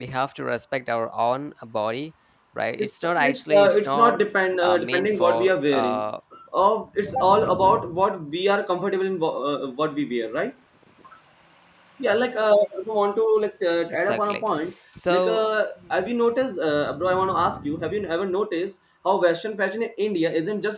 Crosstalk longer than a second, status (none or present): present